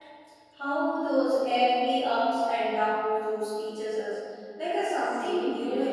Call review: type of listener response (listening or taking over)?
taking over